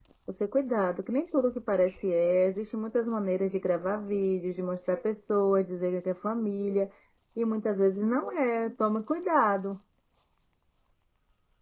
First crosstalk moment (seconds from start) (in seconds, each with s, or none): none